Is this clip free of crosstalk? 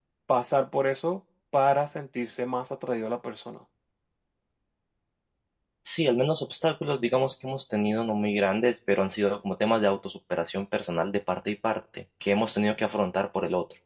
Yes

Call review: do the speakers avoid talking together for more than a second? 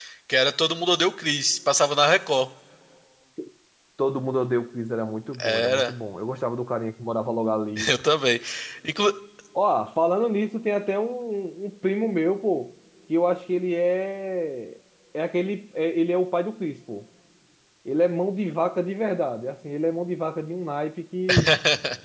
Yes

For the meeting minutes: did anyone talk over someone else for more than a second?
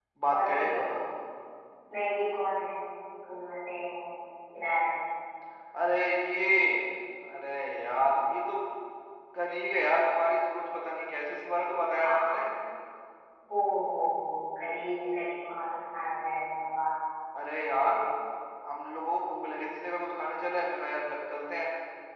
No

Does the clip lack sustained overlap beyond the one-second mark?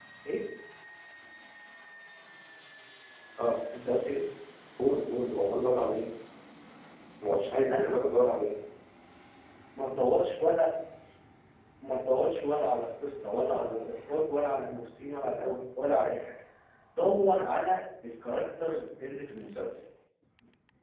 Yes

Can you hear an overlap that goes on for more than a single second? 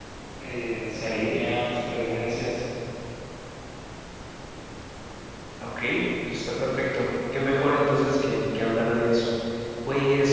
No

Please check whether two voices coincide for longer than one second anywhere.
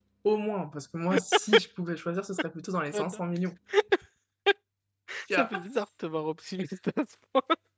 No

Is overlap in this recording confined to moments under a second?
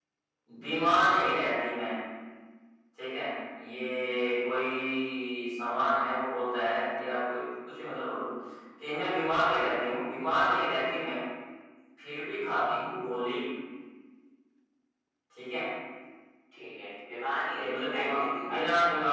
No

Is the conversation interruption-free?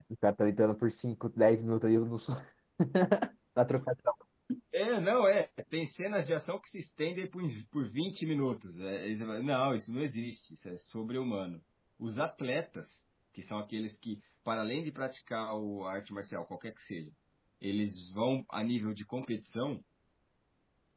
Yes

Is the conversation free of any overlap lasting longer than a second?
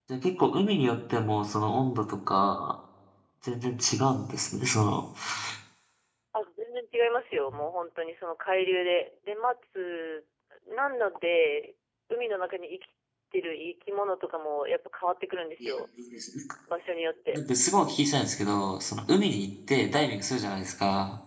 Yes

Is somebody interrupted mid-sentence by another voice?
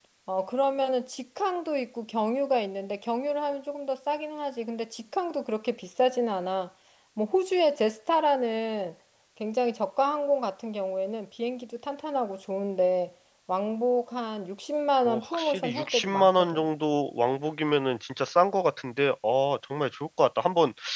Yes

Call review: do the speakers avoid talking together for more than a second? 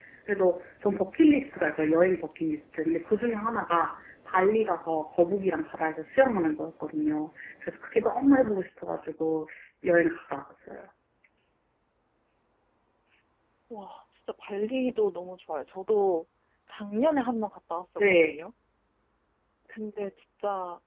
Yes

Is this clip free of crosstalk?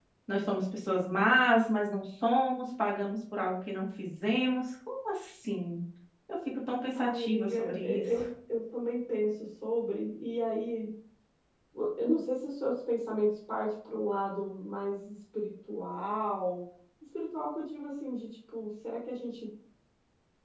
No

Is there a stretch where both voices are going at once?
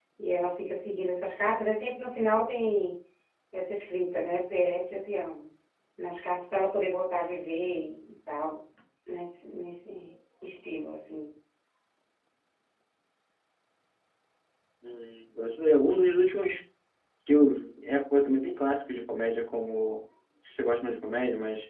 No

